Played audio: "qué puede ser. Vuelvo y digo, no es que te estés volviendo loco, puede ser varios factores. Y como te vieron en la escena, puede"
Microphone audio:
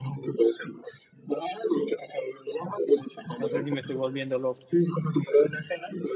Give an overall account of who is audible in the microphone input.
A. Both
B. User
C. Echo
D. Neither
A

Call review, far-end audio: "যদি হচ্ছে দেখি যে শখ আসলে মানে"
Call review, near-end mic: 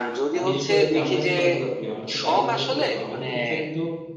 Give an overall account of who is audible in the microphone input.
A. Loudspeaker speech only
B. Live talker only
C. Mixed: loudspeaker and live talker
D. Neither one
C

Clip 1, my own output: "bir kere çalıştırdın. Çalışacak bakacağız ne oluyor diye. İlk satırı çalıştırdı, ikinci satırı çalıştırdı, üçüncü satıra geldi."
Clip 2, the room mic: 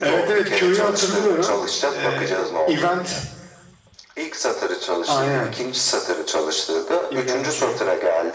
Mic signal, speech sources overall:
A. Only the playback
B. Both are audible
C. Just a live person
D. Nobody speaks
B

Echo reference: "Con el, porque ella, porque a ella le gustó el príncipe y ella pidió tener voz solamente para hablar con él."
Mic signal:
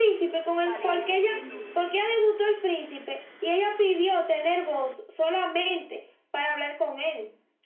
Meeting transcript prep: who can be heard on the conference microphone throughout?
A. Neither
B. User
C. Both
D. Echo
C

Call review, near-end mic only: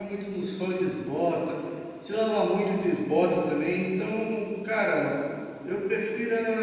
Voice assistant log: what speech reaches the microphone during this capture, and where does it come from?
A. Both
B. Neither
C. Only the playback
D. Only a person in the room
D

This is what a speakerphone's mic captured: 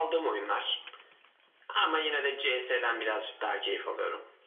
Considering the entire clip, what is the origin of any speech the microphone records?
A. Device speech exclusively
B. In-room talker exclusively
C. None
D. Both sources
A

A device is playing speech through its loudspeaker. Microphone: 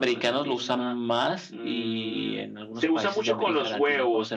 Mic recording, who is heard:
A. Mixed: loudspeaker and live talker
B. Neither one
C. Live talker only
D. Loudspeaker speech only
A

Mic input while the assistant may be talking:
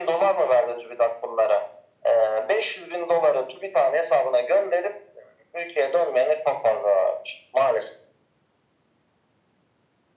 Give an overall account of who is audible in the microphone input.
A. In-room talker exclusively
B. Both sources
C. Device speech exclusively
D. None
C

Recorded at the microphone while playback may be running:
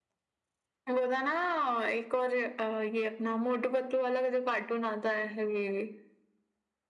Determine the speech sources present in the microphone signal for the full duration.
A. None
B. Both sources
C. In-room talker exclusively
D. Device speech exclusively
D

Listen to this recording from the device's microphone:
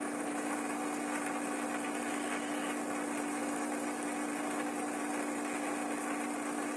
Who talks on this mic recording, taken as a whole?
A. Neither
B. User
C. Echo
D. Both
A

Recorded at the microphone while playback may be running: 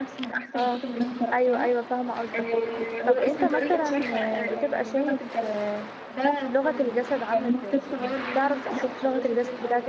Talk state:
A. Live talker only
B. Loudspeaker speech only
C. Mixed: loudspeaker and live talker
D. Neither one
C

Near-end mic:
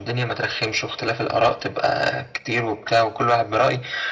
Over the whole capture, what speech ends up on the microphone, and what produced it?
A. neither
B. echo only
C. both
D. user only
B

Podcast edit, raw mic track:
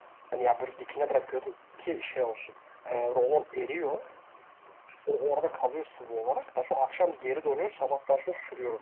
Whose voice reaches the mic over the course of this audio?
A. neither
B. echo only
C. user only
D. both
B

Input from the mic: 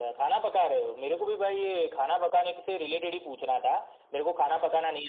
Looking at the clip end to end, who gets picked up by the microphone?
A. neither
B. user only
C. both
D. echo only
D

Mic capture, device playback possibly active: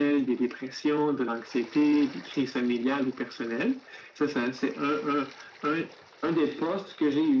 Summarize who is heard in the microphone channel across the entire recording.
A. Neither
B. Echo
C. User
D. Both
B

